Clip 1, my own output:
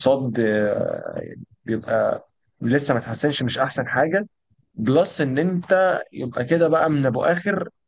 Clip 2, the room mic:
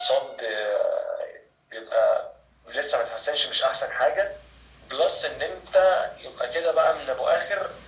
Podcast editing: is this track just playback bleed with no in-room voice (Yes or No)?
Yes